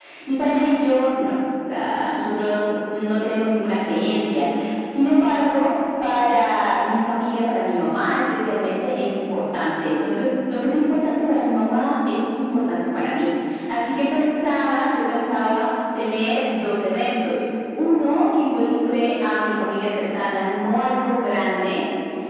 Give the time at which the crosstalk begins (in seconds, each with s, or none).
none